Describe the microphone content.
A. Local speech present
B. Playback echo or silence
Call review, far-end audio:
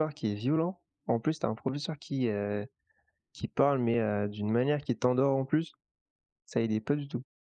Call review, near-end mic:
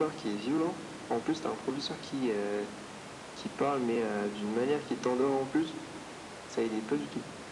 B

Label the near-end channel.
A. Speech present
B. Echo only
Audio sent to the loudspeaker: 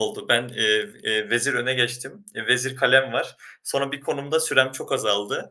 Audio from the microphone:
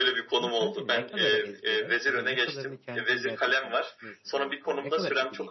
A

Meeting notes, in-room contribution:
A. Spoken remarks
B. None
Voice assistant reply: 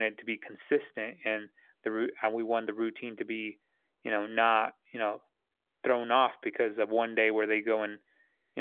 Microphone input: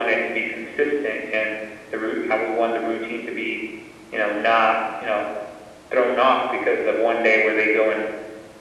B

